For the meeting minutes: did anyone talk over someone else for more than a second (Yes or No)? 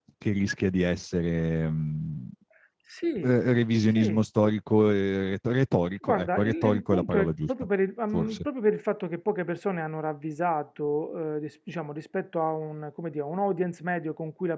Yes